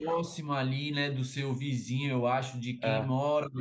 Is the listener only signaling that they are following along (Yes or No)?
Yes